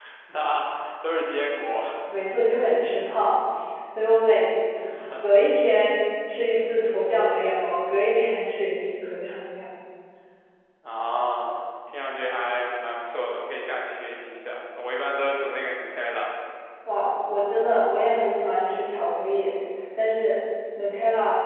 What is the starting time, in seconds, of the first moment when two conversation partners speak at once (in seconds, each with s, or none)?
none